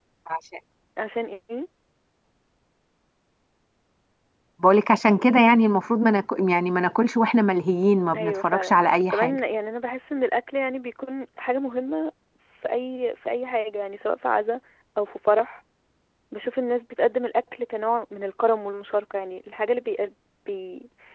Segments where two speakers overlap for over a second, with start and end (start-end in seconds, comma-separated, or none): 8.2-9.4